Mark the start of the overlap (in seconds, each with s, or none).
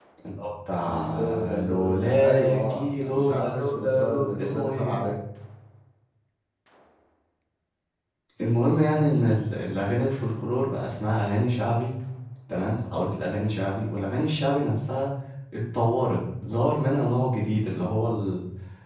0.9 s